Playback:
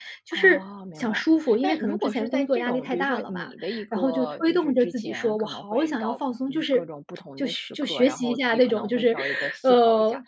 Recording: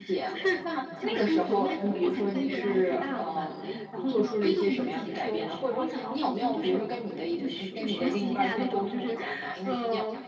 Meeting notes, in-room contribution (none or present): present